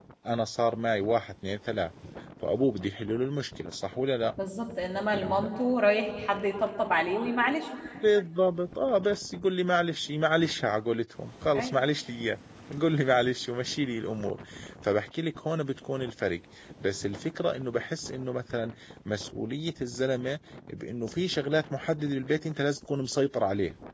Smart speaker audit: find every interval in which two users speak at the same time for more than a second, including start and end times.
none

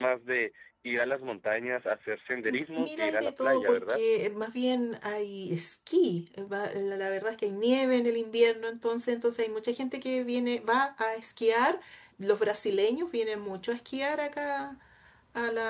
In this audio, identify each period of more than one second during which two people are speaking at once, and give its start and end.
2.8-4.0

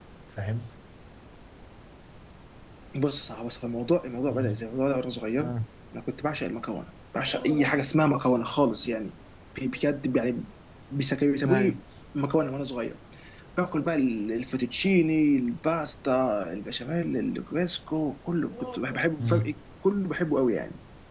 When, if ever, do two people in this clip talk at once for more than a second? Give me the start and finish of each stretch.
none

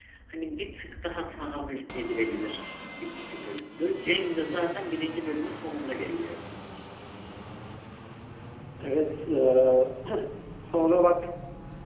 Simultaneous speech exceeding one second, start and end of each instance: none

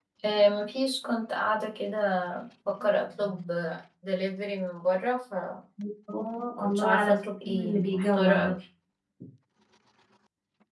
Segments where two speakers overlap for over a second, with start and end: 6.6-8.5

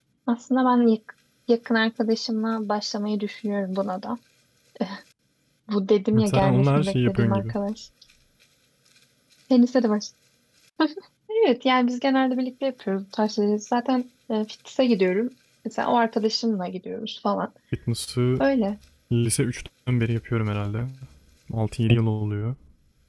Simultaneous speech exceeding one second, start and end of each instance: 6.2-7.5

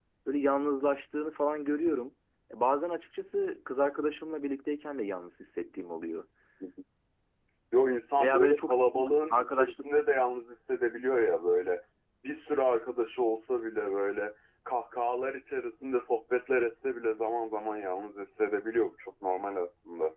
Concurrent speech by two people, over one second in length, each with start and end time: 8.2-9.7

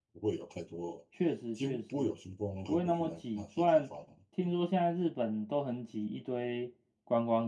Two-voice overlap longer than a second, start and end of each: 2.7-3.9

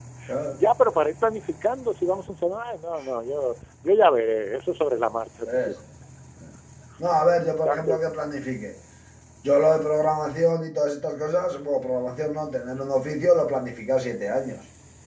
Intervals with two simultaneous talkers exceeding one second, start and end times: none

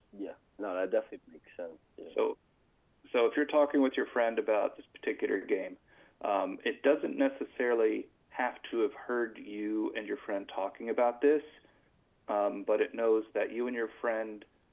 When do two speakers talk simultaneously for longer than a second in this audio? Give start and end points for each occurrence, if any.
none

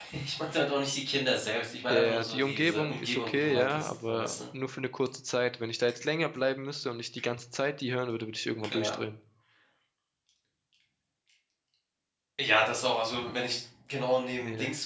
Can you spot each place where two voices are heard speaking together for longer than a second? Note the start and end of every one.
1.9-4.4

